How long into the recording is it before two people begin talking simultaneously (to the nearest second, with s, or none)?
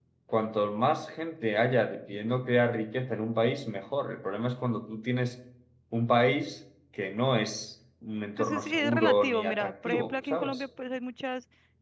8 s